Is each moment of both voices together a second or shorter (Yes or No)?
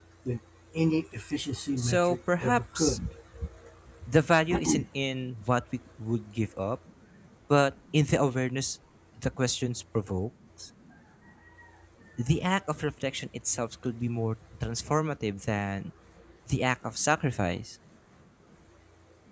No